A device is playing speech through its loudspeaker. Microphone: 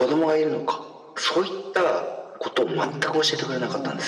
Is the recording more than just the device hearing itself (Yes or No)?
Yes